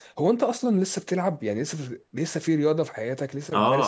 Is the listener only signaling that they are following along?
No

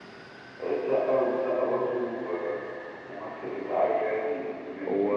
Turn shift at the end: Yes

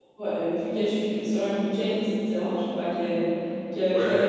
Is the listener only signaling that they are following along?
Yes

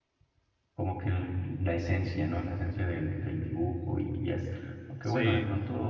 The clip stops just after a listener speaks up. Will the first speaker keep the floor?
Yes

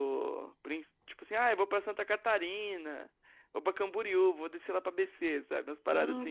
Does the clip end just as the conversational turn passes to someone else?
Yes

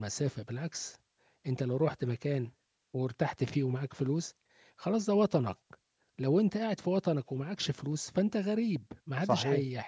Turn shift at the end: Yes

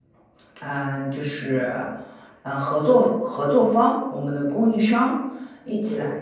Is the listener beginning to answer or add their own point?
No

